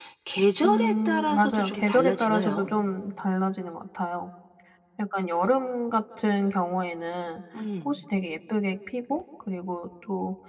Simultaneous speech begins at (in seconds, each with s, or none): 0.6 s